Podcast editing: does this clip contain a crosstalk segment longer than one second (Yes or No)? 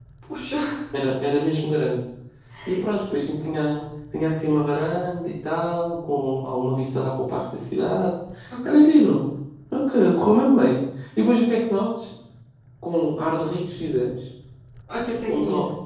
No